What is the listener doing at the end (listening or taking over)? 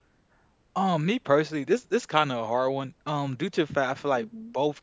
listening